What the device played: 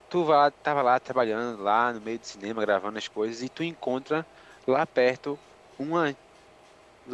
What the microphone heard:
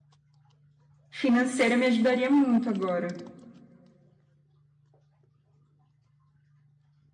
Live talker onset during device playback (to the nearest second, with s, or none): 1 s